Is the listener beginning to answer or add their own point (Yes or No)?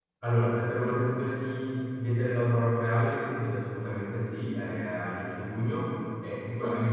No